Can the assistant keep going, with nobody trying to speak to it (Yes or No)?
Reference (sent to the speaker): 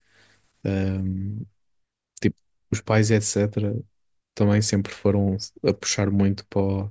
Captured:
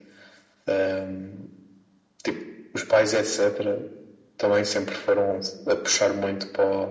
Yes